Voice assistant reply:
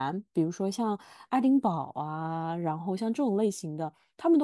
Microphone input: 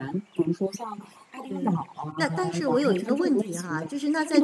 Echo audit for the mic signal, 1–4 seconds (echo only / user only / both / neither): both